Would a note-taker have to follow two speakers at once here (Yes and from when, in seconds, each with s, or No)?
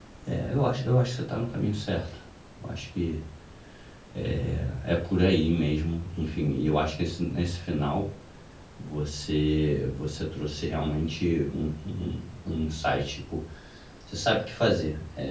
No